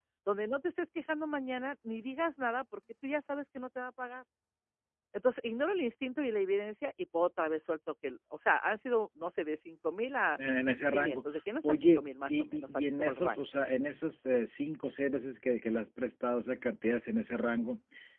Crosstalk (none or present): present